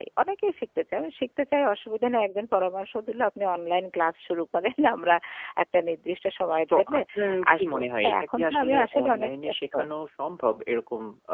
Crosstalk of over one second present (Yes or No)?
Yes